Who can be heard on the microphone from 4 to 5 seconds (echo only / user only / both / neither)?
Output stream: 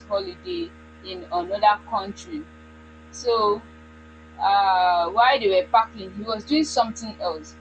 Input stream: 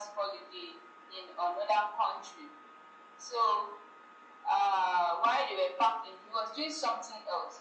echo only